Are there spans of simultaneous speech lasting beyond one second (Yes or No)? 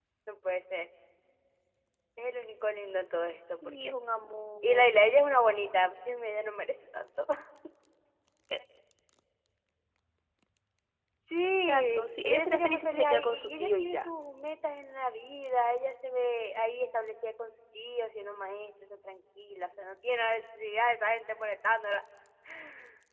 Yes